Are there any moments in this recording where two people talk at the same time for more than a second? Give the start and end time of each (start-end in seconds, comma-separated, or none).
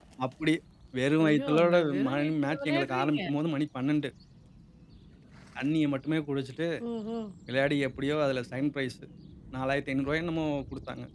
1.2-3.2